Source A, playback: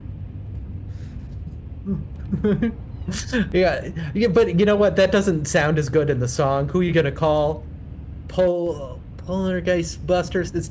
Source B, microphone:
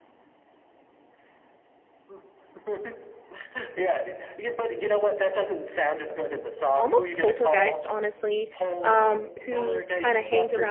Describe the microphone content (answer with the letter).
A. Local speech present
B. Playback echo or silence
A